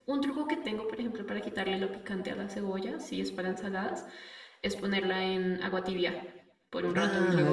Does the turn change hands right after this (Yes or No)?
Yes